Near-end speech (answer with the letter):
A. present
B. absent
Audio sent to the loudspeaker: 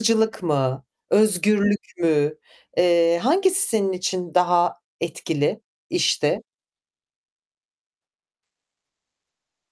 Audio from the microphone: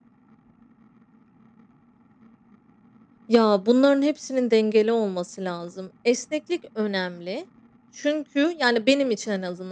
A